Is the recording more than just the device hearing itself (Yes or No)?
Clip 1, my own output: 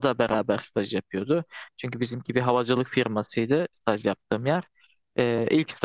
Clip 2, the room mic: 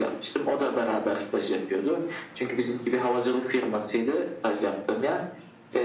No